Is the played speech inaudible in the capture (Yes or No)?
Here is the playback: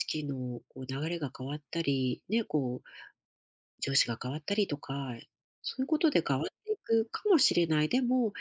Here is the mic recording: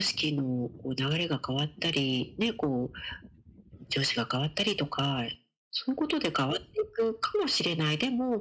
No